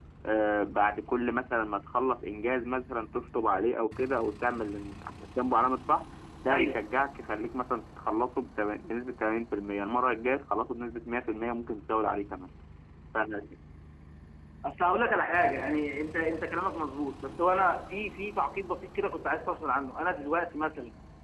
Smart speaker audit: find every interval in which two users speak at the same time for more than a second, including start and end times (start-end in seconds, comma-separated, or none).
none